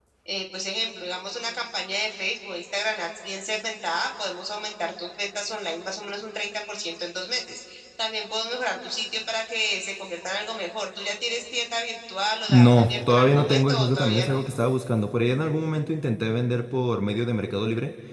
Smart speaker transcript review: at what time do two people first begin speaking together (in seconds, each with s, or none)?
12.5 s